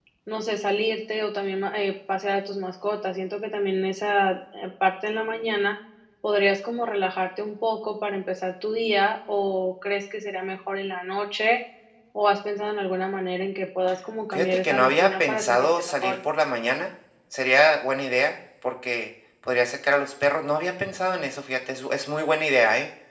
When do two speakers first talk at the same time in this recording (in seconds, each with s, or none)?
14.3 s